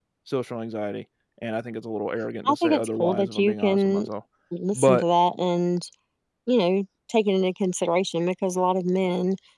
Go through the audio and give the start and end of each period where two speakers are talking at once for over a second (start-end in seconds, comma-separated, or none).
2.5-4.1